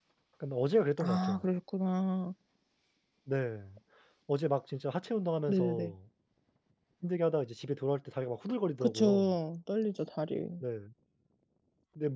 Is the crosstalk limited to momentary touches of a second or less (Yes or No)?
Yes